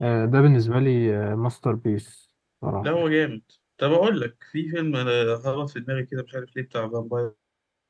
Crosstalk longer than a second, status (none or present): none